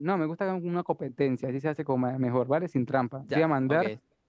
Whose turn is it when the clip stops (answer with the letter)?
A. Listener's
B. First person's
B